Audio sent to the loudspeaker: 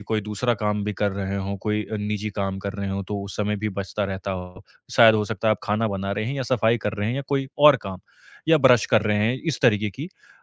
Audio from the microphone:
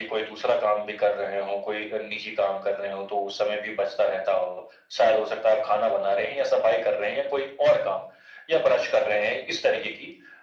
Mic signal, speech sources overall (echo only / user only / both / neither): echo only